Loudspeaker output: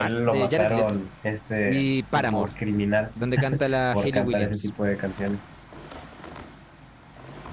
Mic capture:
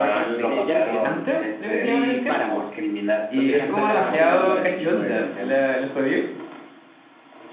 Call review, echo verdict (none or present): present